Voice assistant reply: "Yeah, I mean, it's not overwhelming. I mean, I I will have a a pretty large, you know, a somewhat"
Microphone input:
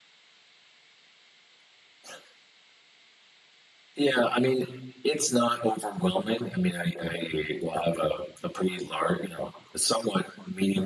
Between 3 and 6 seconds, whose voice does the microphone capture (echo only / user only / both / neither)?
echo only